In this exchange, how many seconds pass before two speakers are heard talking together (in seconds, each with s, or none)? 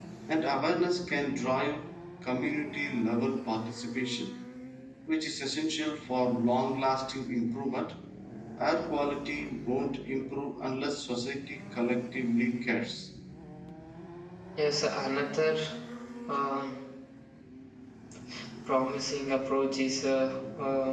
none